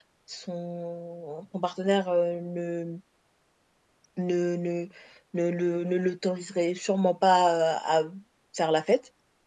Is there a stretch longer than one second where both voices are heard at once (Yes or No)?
No